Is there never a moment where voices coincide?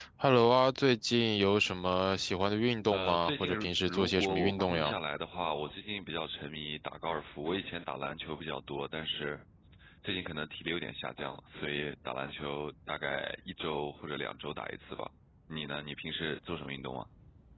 No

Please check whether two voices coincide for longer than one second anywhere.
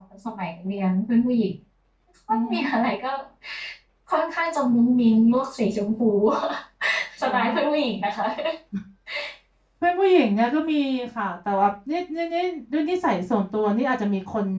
No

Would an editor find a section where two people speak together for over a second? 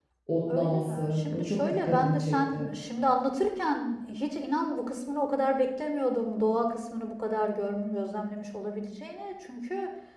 Yes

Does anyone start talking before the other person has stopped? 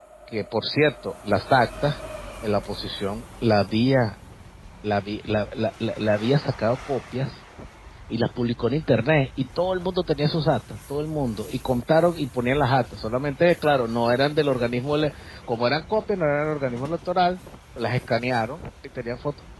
No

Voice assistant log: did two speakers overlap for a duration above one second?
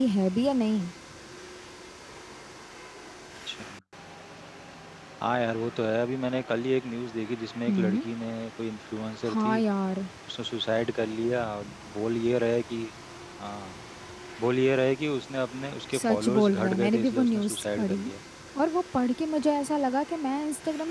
Yes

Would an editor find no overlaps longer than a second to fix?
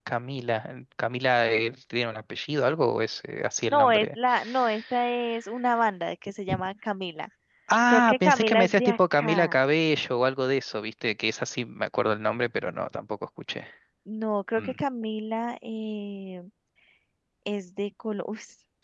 No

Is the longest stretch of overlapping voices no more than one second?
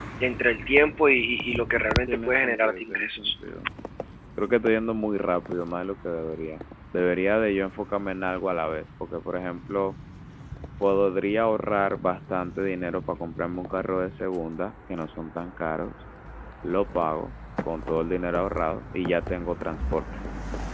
No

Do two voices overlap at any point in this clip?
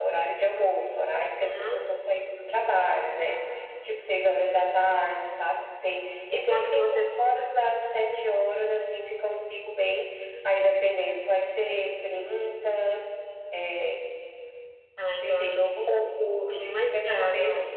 Yes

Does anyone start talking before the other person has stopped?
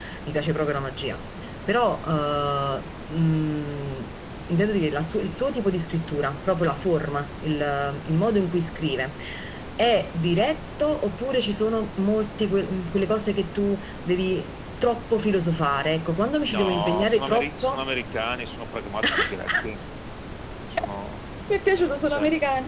Yes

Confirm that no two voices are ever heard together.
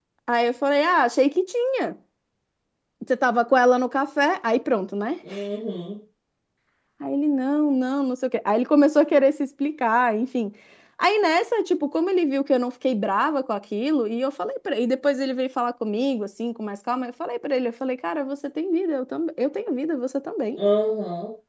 Yes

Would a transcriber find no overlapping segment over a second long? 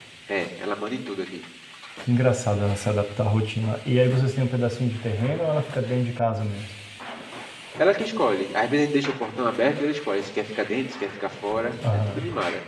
Yes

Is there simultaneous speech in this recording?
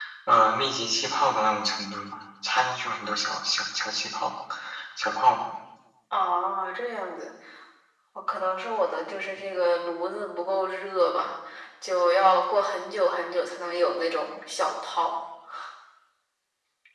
No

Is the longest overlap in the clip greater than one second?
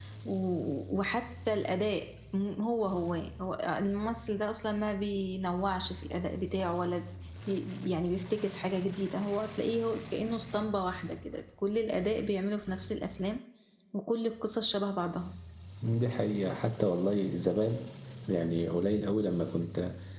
No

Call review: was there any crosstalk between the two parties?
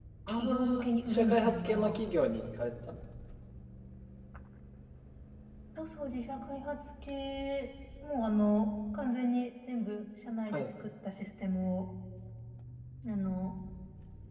Yes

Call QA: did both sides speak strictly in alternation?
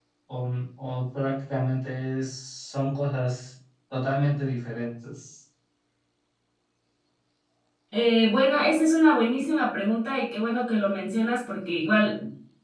Yes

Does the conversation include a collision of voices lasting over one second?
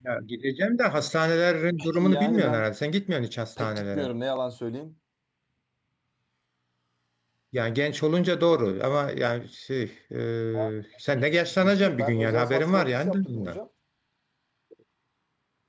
Yes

